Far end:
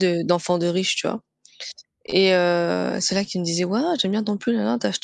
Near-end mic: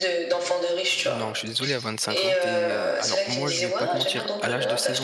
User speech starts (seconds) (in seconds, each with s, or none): 0.9 s